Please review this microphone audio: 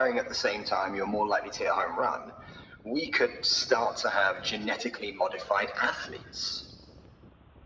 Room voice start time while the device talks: none

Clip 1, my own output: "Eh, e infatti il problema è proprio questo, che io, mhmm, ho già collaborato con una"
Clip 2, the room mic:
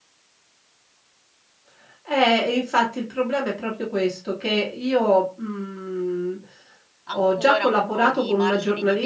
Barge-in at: 7.0 s

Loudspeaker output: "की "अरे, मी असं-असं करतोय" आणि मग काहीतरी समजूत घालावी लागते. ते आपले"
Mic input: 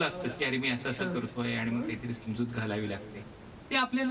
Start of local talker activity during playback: 1.0 s

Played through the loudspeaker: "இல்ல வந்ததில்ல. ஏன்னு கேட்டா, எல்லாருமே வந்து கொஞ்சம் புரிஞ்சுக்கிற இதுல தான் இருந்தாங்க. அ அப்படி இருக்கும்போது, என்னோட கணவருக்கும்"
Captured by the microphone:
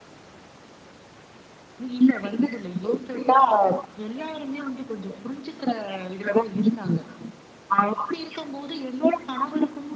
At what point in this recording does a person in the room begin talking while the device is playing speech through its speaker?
none

